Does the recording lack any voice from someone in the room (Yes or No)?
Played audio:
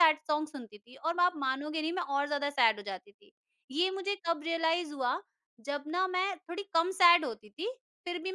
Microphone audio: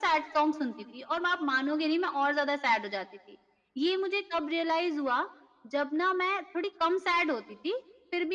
Yes